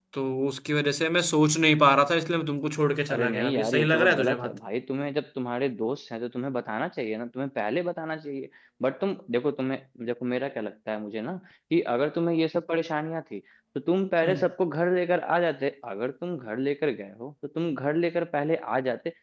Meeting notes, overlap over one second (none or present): present